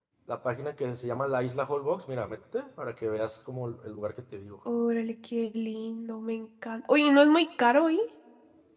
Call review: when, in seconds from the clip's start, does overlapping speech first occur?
none

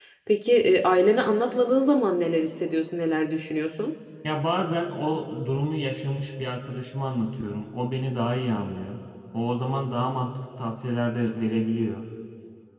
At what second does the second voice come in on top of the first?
none

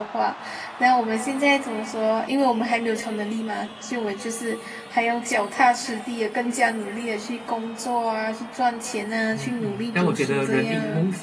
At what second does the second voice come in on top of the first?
9.3 s

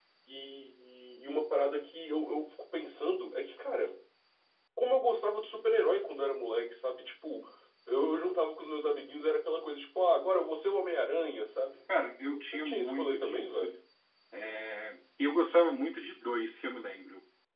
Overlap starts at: 12.5 s

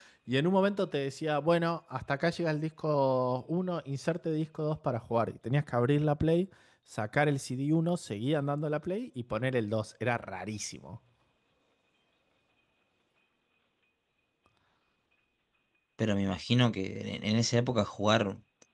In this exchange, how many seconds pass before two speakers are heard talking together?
none

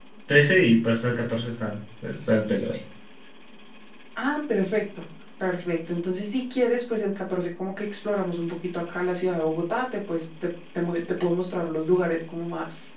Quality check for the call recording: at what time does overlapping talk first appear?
none

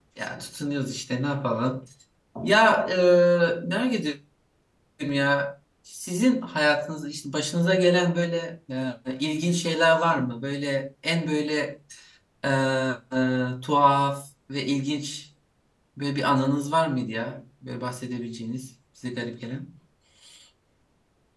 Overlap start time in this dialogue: none

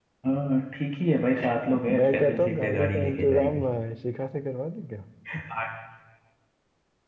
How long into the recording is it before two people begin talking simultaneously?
1.6 s

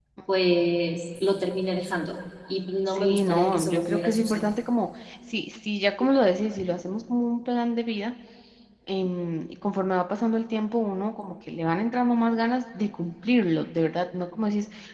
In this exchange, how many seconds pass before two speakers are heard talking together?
2.9 s

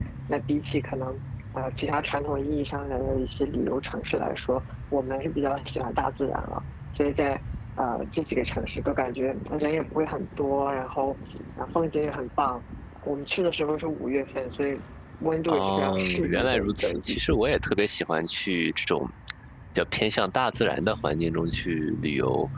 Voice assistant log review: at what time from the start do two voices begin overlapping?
15.5 s

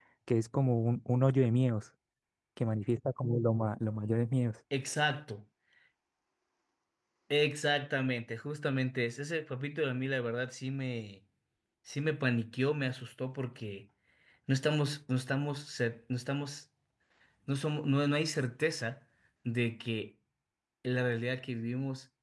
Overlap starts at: none

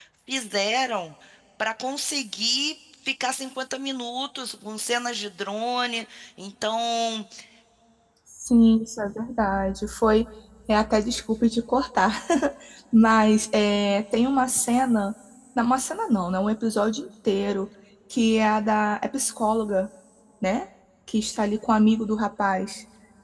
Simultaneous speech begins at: none

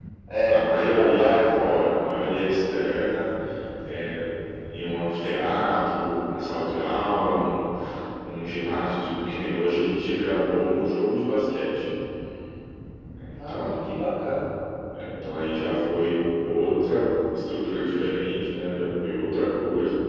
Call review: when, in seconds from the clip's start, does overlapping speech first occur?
0.5 s

